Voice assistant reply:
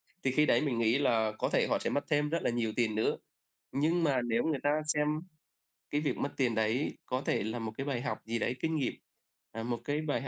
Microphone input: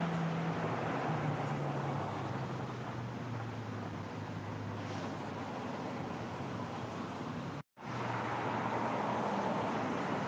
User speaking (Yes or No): No